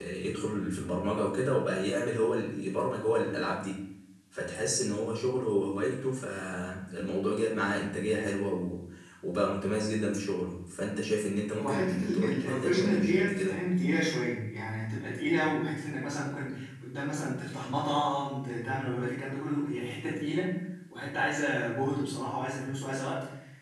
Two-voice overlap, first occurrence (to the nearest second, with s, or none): 12 s